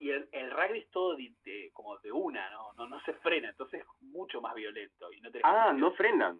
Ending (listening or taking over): taking over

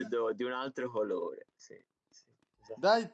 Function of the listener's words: taking over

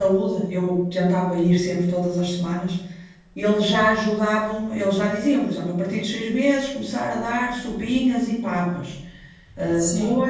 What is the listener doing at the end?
listening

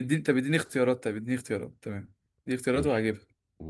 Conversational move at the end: taking over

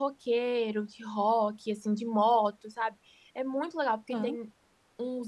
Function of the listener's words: listening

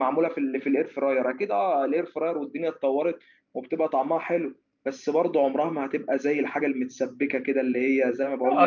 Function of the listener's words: taking over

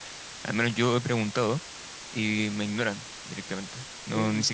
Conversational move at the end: listening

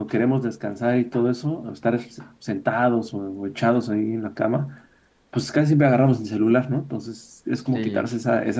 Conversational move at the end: listening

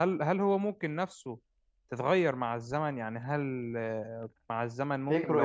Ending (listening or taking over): listening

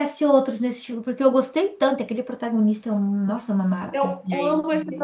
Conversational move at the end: taking over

